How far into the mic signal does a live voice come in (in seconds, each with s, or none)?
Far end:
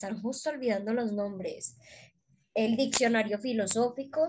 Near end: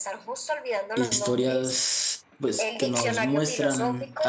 0.9 s